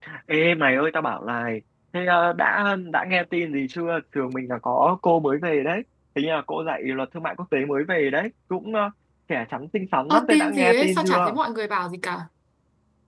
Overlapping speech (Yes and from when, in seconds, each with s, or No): Yes, from 10.1 s